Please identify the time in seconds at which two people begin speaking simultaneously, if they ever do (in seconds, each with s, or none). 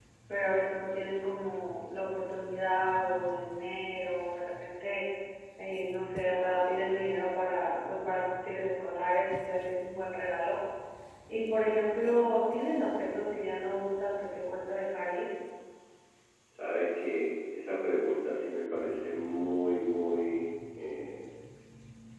none